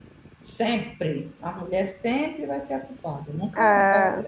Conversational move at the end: listening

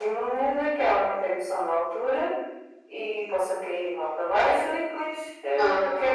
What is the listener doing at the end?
listening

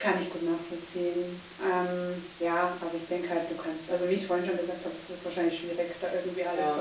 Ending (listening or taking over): listening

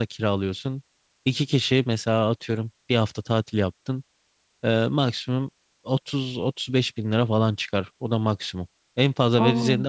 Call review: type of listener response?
listening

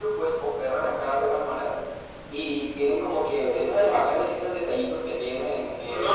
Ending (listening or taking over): taking over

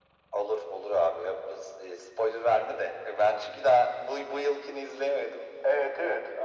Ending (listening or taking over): taking over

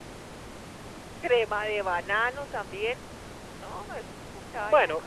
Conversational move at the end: taking over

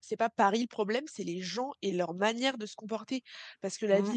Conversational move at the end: listening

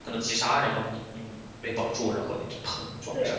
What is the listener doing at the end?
taking over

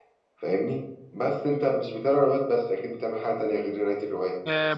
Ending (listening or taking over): taking over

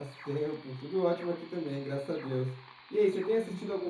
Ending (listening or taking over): listening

